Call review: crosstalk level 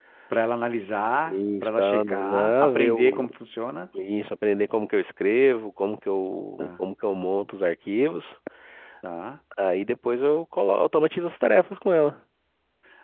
present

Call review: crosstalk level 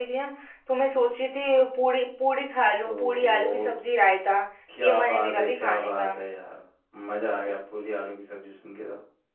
present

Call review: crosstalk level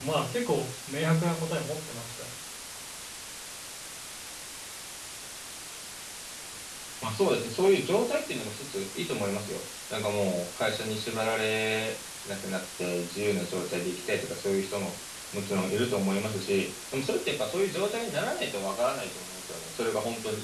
none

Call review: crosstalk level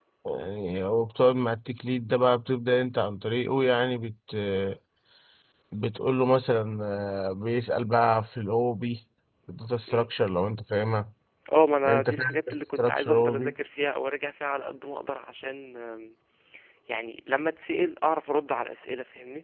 present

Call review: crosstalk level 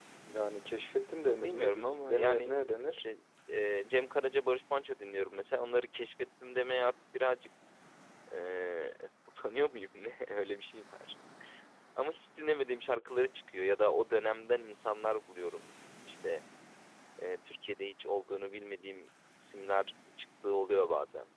present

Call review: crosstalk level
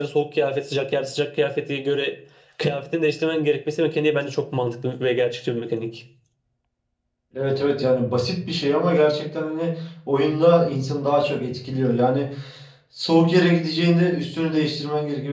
none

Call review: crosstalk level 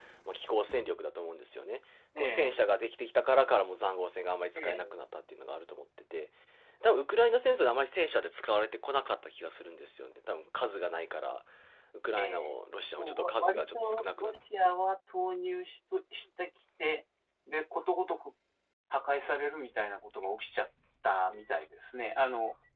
present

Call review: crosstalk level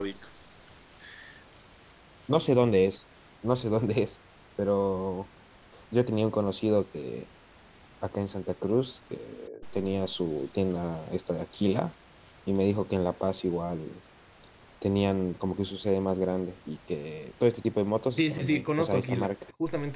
present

